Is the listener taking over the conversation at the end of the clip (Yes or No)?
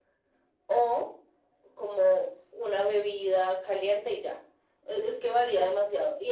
No